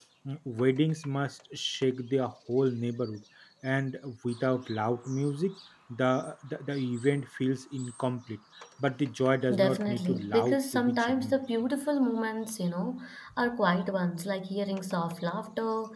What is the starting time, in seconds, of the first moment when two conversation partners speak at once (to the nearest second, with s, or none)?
10 s